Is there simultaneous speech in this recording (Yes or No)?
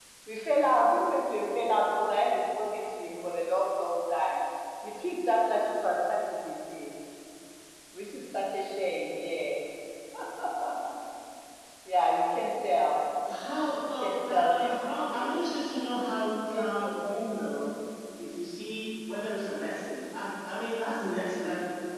Yes